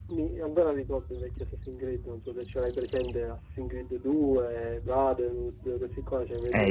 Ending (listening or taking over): taking over